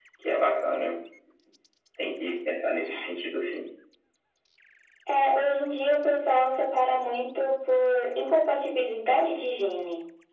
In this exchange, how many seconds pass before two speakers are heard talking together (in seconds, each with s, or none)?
none